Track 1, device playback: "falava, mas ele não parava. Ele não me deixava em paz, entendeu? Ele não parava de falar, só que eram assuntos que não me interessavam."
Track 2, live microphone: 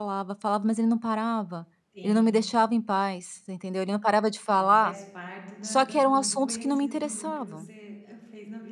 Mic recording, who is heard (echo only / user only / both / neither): both